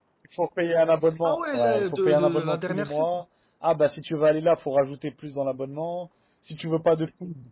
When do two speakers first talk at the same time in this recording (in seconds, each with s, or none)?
1.2 s